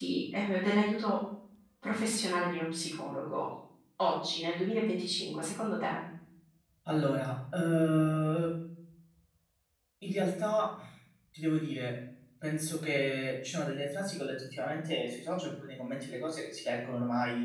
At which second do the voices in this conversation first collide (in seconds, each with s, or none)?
none